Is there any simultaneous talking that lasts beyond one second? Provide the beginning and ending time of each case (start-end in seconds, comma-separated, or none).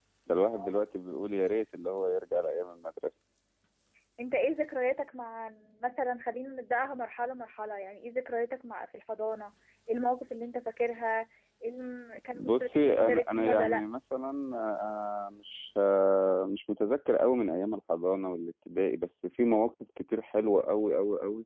12.3-13.8